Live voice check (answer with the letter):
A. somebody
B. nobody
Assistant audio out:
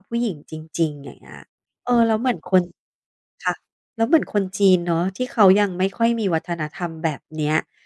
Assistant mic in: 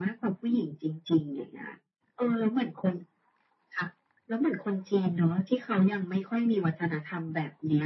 B